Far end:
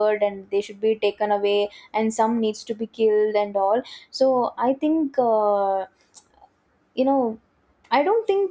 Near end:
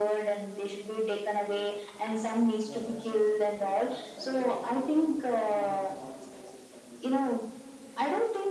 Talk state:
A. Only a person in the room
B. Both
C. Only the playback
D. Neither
B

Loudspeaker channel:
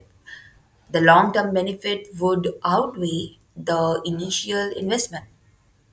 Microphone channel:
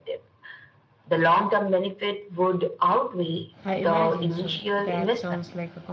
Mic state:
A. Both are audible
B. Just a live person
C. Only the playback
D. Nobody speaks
A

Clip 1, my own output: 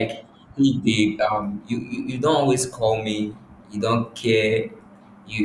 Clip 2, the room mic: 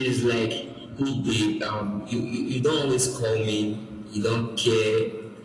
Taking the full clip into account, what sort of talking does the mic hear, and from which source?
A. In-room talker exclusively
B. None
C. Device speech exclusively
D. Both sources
C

